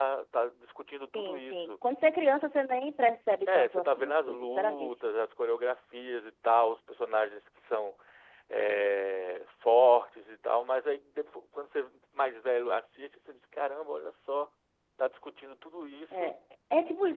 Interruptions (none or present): present